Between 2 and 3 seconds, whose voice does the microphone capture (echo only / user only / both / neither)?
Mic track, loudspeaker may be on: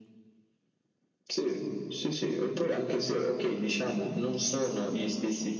echo only